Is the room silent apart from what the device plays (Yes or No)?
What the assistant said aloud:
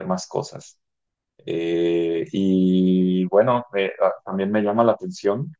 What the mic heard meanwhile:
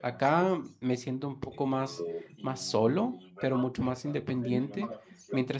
No